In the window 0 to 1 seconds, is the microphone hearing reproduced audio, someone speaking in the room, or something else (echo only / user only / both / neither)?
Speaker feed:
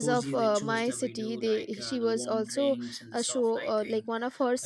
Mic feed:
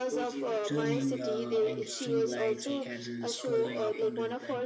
both